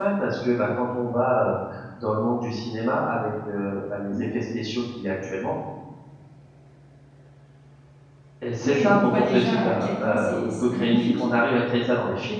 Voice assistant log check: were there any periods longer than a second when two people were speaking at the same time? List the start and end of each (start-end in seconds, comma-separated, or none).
8.6-11.2